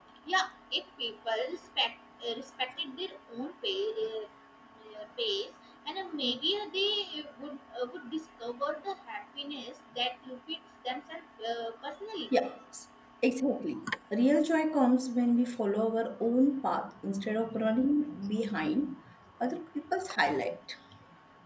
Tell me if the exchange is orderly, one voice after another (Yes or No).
Yes